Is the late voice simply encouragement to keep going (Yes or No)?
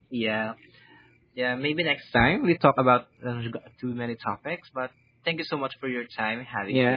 No